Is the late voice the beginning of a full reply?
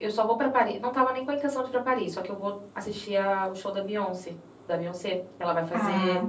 No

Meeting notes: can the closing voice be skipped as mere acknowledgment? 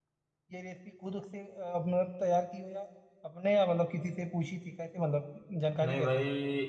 No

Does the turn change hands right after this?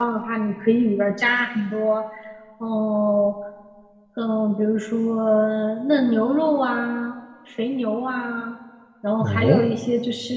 No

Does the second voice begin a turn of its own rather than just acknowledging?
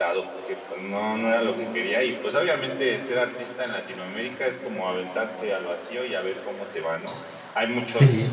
No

